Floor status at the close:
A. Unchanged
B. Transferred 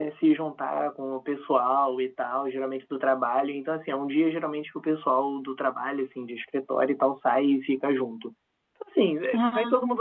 A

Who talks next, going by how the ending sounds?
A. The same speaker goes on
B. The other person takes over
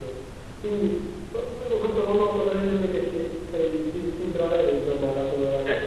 B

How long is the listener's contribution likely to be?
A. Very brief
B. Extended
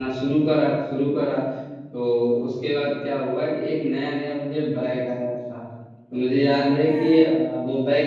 A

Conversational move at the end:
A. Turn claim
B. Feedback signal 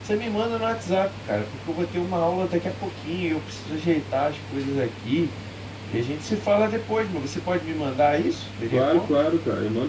A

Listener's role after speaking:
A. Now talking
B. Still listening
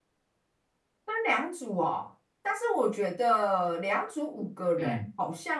B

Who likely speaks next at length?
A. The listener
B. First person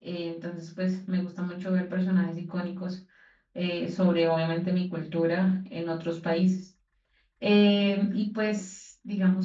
B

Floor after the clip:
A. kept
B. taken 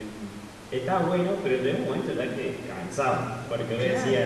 A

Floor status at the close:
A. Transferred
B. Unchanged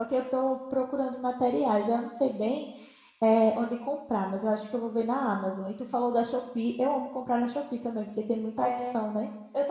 A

